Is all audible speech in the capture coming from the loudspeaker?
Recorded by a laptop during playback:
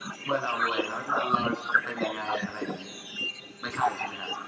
Yes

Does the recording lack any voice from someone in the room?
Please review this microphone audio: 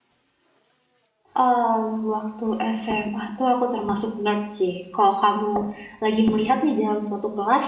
No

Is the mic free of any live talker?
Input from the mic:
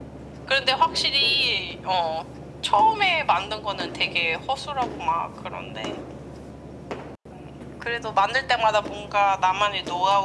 Yes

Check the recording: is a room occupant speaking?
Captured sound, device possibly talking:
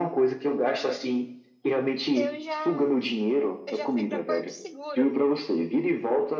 Yes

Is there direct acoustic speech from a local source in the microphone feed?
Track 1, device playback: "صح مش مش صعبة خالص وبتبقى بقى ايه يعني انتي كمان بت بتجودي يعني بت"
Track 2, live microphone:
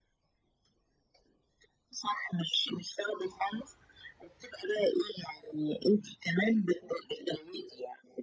No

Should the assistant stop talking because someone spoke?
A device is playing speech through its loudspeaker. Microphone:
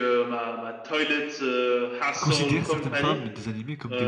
Yes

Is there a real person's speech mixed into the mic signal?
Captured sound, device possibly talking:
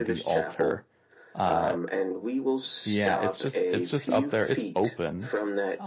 Yes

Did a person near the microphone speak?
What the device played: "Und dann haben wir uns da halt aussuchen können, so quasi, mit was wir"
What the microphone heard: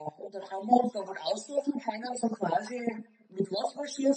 No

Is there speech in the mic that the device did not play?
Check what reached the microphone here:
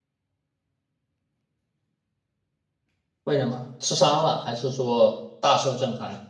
Yes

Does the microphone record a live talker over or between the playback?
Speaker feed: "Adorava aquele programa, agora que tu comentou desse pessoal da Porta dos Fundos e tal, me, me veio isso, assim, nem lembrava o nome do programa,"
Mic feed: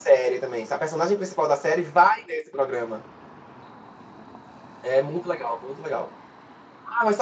Yes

